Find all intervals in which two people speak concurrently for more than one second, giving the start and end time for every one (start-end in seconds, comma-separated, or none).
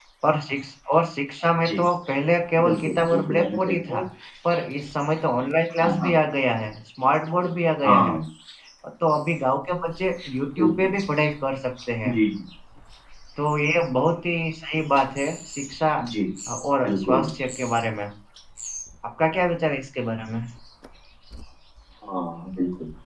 2.6-4.0